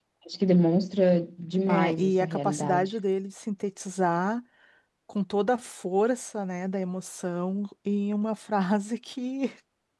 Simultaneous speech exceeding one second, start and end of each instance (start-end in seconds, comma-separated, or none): 1.7-2.9